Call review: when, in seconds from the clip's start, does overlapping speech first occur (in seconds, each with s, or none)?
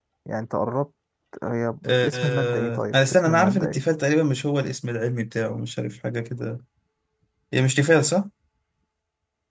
2.0 s